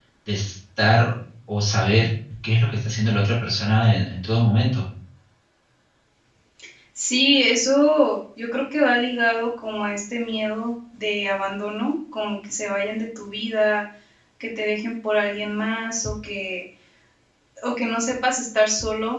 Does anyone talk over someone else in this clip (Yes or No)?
No